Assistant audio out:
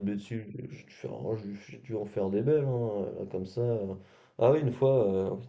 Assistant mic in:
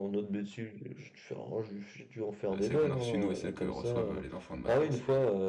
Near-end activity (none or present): present